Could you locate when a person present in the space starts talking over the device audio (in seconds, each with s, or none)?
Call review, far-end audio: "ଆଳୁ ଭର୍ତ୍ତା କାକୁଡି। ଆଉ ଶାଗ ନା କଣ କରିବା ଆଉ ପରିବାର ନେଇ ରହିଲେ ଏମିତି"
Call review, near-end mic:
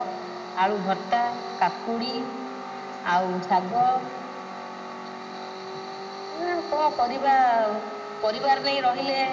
none